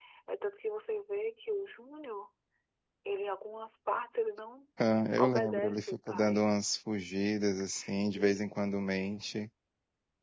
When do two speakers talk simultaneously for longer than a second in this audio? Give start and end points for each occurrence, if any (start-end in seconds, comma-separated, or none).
5.2-6.4